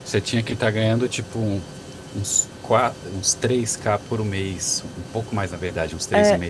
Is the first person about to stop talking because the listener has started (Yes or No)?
Yes